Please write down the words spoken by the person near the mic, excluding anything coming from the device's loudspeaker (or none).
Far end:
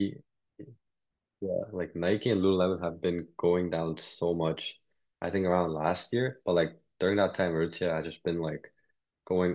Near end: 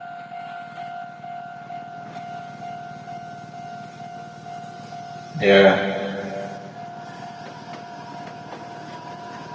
Yeah.